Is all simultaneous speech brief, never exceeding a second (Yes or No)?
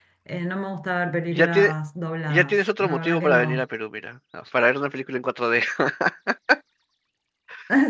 No